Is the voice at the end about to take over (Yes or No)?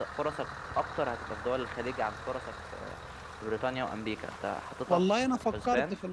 Yes